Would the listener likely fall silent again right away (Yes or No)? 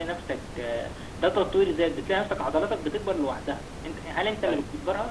Yes